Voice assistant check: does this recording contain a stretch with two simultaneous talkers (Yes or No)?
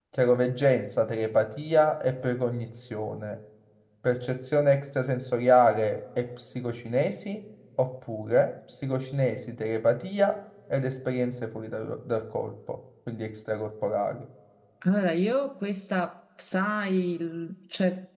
No